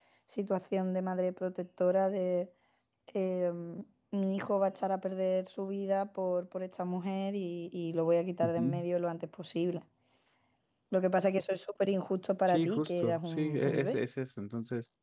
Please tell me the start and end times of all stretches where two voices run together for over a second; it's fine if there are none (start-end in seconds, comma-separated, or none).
12.5-14.0